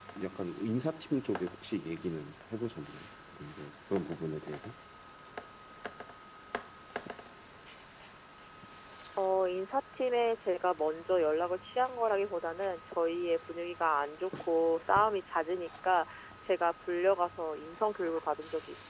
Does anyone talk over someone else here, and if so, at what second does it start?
none

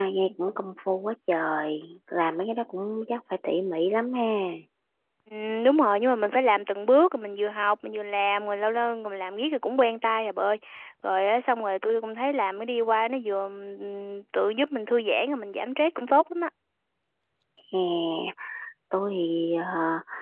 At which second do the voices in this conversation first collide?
none

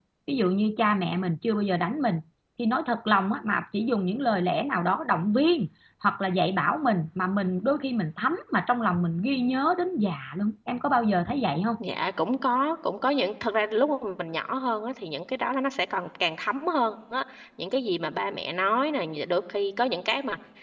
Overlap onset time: none

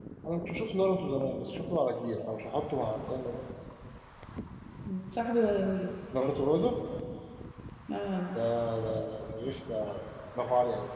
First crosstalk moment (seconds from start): none

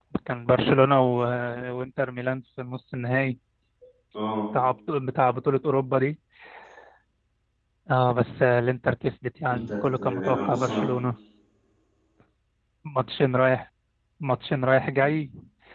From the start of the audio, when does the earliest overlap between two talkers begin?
10 s

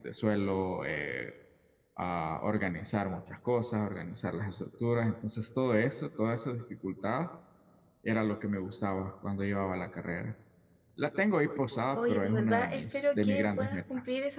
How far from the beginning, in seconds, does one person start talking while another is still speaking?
12 s

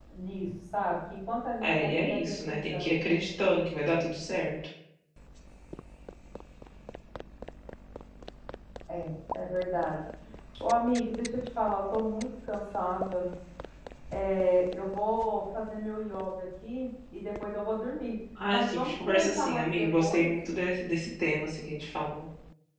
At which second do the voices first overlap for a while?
2 s

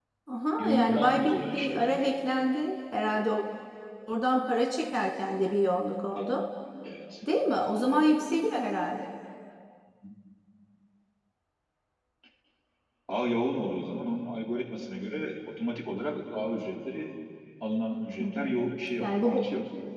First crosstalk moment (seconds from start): 1 s

